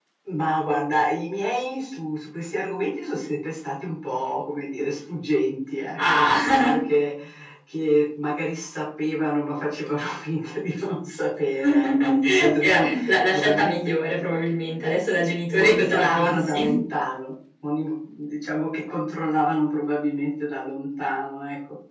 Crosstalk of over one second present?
Yes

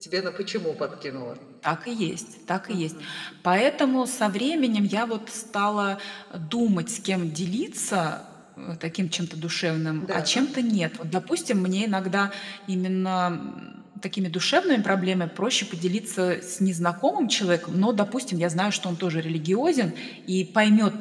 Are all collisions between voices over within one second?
Yes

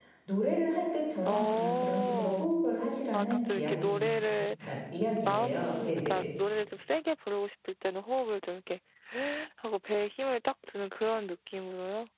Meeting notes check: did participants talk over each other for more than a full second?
Yes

